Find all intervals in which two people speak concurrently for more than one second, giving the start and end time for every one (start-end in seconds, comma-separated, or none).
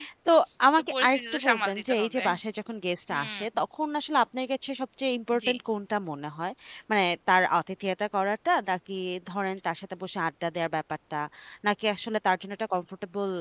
0.8-2.2